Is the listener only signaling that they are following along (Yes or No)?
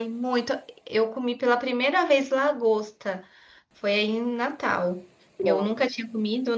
Yes